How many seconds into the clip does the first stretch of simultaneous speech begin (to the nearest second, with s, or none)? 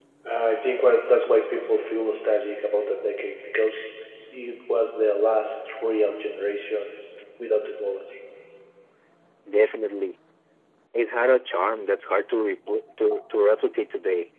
none